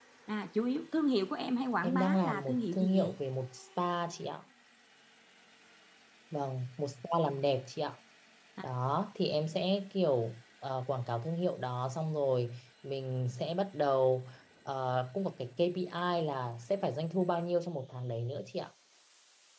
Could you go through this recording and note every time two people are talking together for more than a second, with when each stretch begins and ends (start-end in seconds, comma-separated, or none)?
1.8-3.1